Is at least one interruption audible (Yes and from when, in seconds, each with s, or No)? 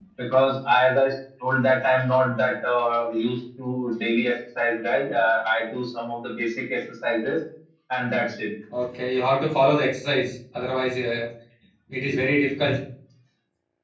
No